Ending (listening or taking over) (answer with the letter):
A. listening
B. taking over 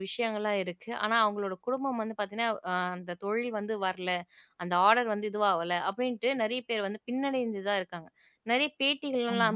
A